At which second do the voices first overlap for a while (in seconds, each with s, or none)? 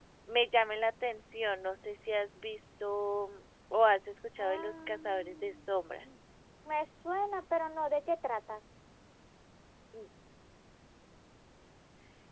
4.4 s